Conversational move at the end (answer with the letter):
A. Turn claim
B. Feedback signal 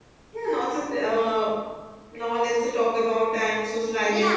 A